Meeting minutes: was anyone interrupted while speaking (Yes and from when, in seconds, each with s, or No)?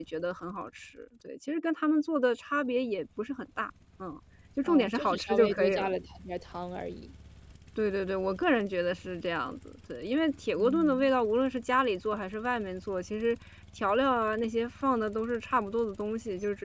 Yes, from 4.7 s